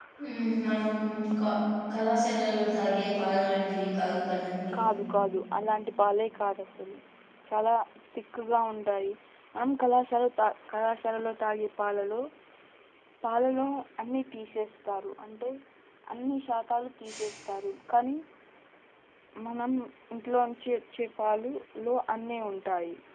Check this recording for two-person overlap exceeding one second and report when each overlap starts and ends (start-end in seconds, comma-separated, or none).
none